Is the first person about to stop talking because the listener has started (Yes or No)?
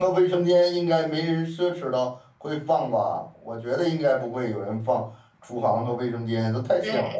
Yes